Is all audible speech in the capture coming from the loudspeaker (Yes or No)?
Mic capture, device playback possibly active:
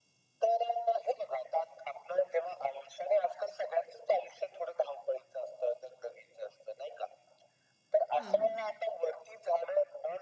No